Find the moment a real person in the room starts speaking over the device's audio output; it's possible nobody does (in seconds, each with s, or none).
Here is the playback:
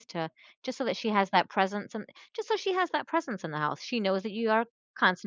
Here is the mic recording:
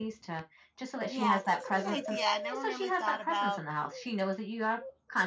1.1 s